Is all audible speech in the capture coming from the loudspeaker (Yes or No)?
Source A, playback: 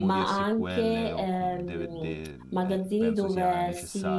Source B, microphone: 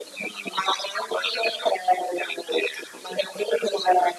Yes